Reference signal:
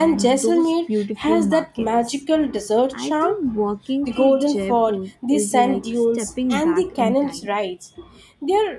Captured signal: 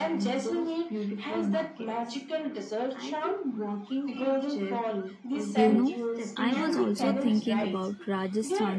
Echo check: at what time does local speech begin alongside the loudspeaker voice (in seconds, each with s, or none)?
5.5 s